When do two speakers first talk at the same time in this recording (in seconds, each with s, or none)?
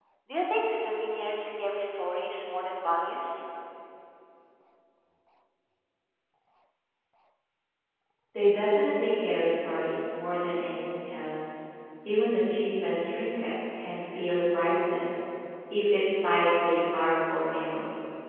none